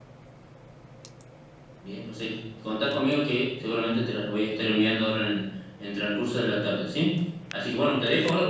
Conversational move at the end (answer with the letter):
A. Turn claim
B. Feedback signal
B